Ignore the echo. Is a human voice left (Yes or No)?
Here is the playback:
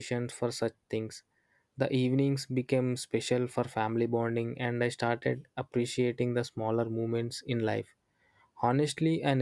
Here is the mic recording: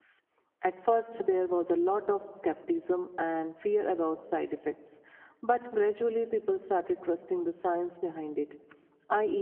Yes